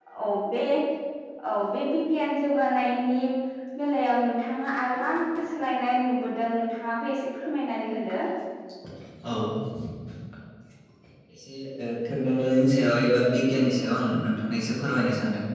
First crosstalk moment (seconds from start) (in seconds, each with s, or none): none